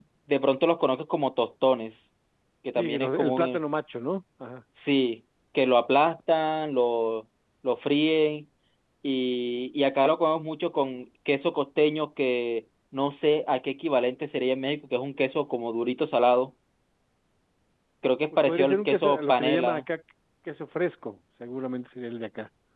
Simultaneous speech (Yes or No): Yes